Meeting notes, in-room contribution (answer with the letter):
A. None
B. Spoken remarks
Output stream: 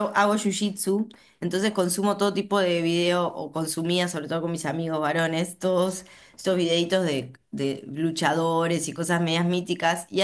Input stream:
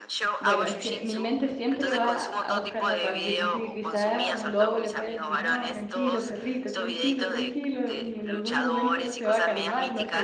B